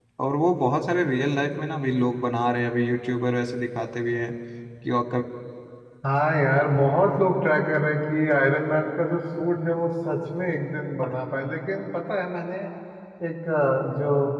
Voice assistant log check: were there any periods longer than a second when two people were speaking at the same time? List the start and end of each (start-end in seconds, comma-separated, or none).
none